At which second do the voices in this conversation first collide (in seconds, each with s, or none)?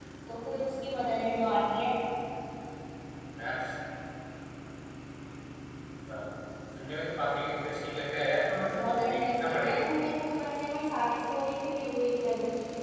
8.5 s